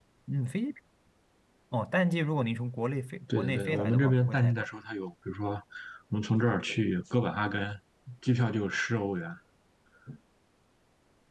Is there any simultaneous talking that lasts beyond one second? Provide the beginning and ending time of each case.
3.4-4.7

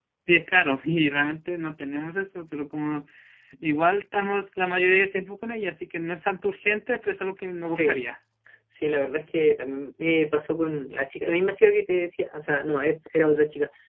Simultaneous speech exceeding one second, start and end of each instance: none

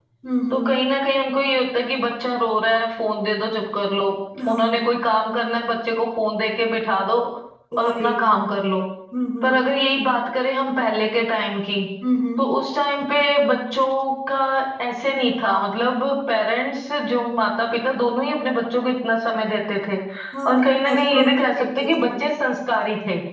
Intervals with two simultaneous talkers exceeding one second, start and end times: 20.5-22.1

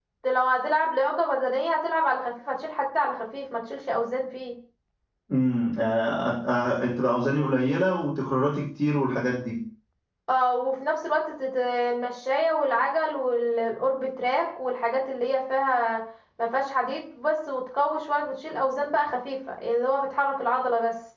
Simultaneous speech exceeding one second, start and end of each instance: none

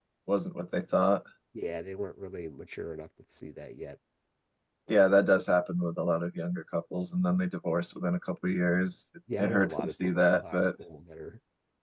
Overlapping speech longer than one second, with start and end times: 9.4-10.6

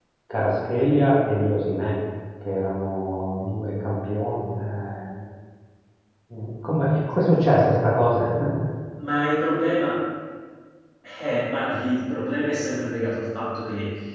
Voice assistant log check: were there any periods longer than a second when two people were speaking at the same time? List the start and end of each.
none

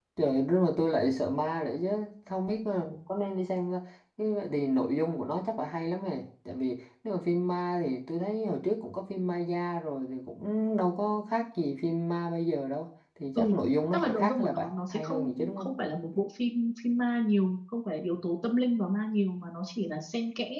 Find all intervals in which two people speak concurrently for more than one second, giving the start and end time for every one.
13.9-15.7

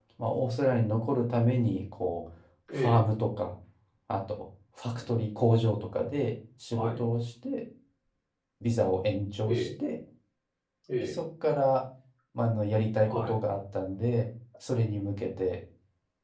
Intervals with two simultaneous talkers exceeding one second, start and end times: none

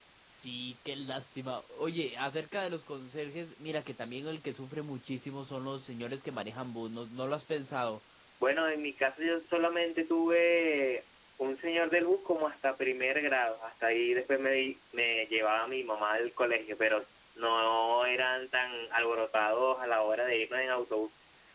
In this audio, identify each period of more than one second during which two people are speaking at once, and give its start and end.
none

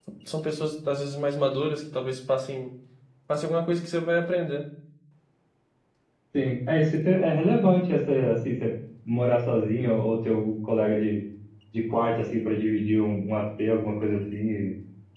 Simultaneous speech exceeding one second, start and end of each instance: none

